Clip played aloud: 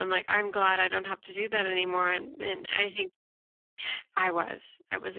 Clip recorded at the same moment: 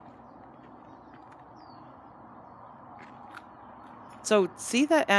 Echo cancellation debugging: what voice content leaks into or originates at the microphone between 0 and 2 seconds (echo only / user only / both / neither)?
neither